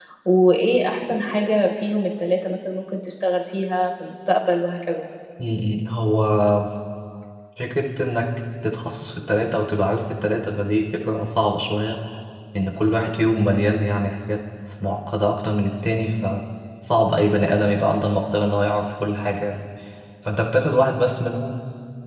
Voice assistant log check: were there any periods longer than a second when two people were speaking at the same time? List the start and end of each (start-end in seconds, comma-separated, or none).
none